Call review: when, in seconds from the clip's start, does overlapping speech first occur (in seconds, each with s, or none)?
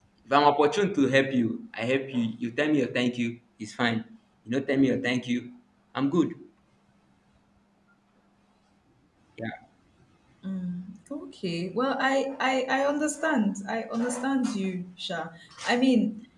none